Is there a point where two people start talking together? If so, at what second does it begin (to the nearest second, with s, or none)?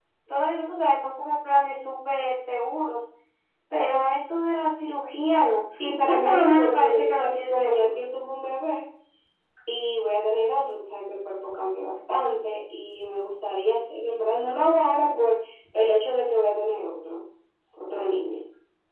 6 s